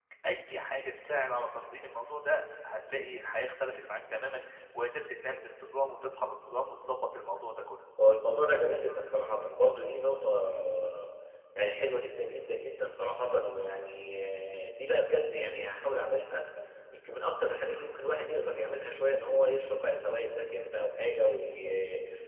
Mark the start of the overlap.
none

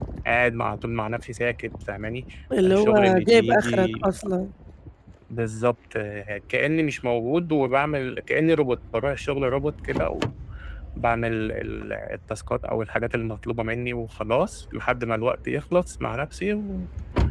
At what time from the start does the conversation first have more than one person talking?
2.6 s

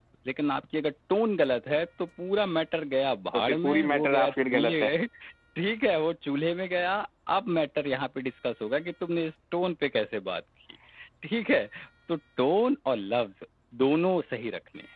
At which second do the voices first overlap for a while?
3.3 s

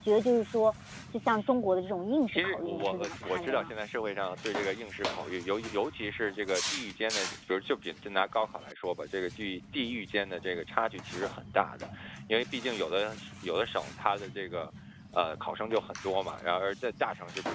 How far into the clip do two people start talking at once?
2.3 s

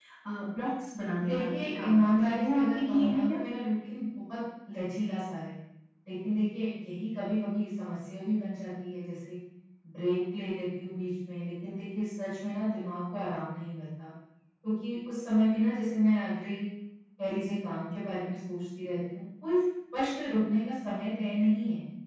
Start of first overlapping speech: 1.2 s

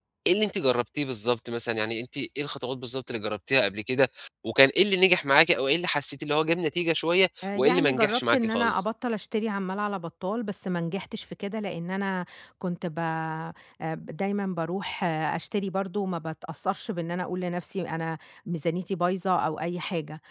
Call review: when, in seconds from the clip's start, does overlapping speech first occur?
7.4 s

